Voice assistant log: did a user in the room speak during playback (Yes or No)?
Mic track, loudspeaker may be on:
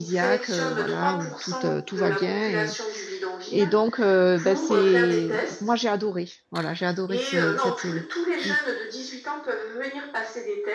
Yes